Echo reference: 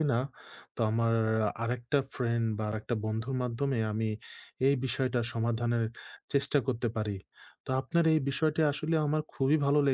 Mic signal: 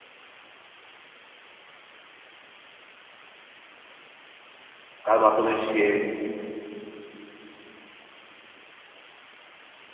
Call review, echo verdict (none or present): none